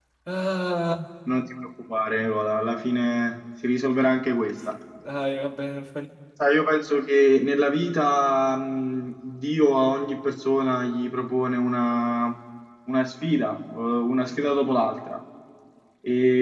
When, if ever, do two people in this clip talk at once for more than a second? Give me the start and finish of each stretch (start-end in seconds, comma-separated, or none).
none